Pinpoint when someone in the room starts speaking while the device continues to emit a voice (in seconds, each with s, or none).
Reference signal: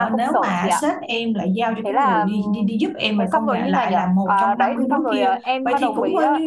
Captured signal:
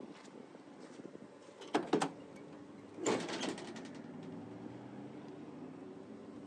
none